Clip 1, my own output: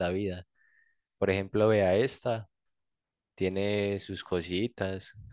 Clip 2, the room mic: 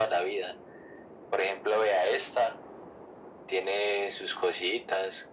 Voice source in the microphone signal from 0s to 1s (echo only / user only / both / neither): echo only